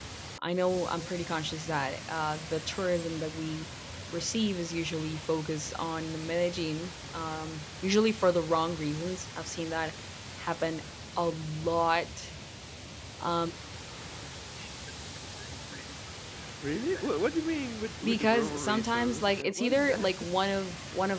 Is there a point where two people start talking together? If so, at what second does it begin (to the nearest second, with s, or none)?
18 s